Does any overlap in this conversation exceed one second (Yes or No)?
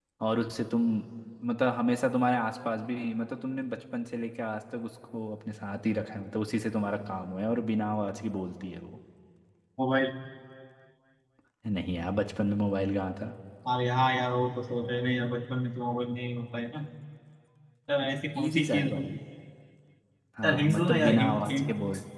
Yes